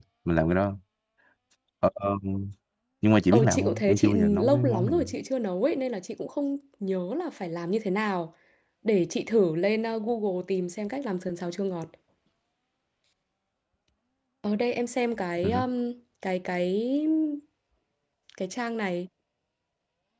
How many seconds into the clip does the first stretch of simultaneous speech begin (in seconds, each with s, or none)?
3.3 s